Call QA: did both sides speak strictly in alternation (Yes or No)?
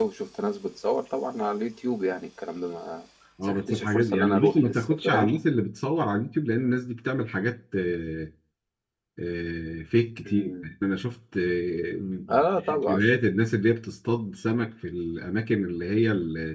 No